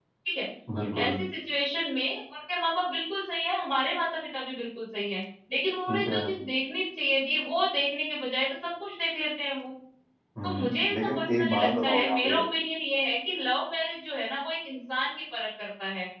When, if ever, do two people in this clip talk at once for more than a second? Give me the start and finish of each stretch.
10.4-12.4

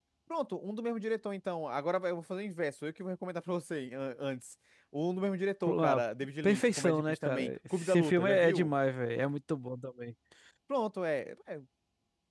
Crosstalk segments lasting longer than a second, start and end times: 6.4-8.7

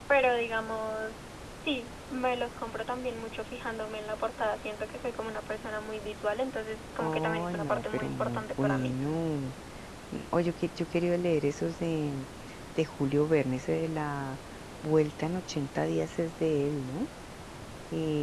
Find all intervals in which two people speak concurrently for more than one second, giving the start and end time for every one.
7.0-9.0

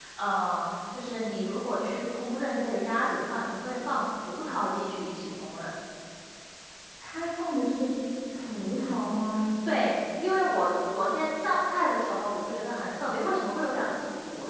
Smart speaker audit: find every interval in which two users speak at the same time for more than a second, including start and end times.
none

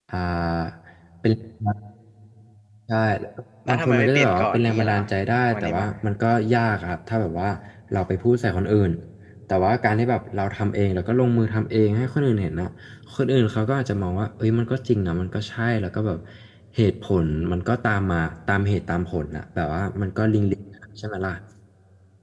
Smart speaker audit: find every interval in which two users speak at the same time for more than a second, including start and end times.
3.7-5.0

